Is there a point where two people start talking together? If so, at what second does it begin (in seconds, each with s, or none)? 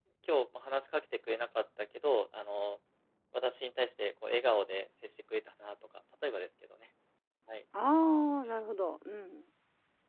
none